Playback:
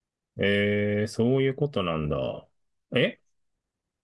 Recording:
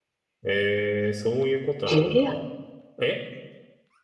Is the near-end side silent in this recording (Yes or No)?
No